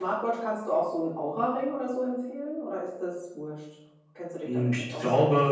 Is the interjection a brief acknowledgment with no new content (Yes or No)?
No